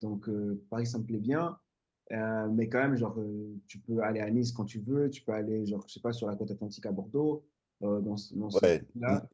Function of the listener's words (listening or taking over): taking over